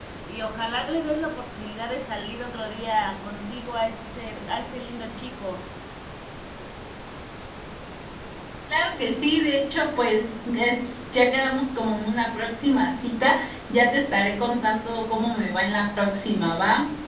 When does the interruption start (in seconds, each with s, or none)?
none